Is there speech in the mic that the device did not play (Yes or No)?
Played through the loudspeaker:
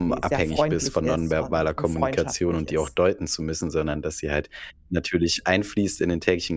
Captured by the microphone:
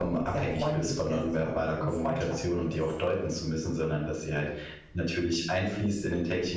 No